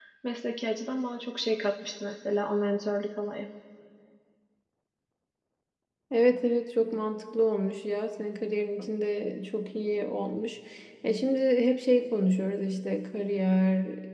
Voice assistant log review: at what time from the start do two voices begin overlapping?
none

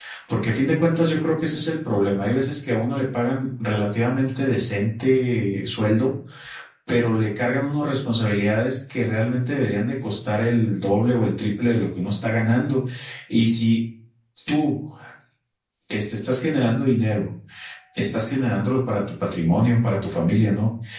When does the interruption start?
none

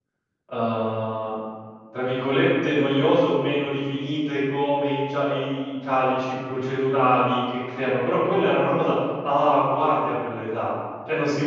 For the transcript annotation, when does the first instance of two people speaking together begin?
none

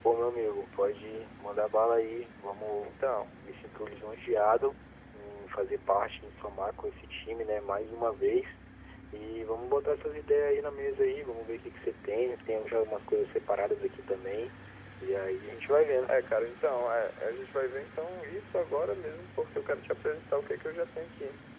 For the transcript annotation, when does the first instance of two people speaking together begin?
none

